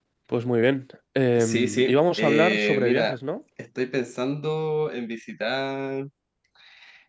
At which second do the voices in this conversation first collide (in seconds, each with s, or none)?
1.4 s